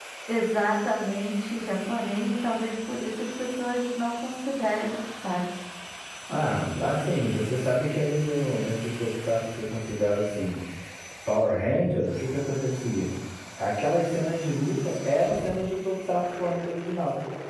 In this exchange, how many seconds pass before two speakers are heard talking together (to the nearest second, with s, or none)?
none